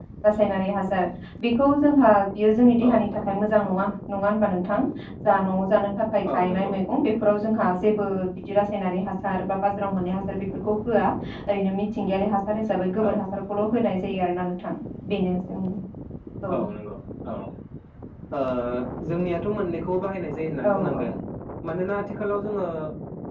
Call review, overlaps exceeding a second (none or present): none